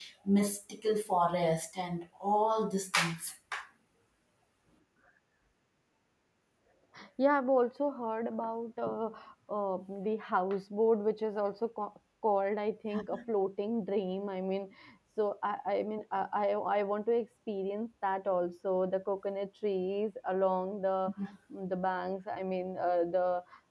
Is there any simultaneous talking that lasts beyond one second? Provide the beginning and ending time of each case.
none

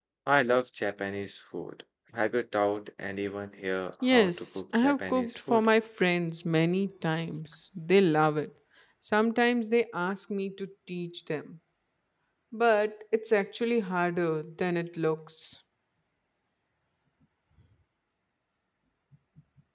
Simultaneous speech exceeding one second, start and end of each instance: 4.1-5.7

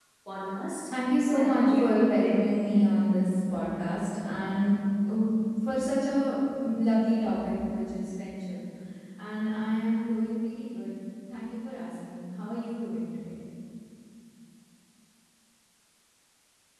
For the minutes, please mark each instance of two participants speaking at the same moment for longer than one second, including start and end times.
1.4-2.6

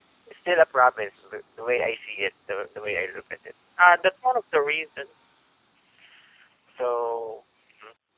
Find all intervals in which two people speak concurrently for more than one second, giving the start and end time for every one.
none

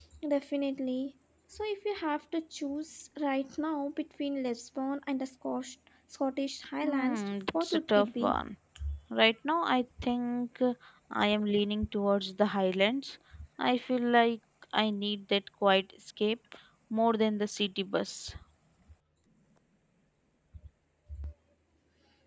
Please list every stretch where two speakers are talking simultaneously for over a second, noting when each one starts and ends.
6.8-8.4

